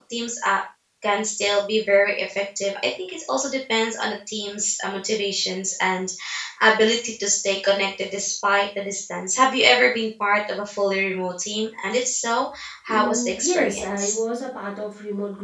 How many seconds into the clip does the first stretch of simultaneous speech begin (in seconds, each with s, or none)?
12.9 s